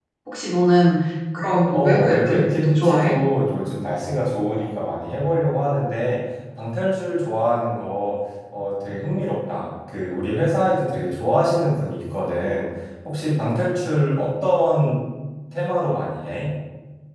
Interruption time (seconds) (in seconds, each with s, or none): 1.7 s